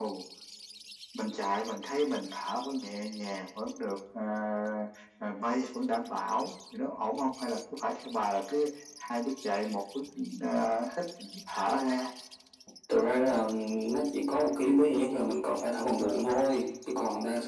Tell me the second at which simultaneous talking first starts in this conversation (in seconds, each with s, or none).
none